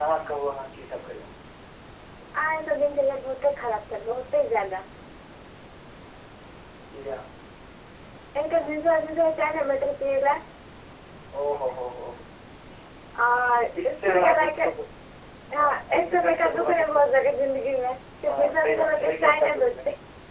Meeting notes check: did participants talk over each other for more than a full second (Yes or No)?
Yes